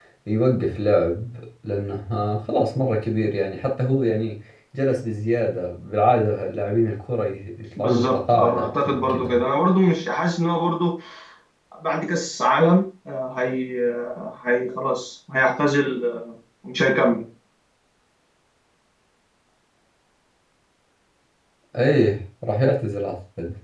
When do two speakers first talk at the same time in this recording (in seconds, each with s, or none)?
7.8 s